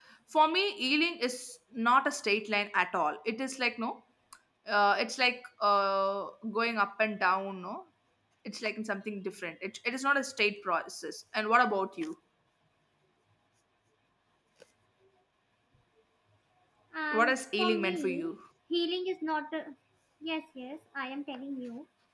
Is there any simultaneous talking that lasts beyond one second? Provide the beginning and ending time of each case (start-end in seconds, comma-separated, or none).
17.1-18.3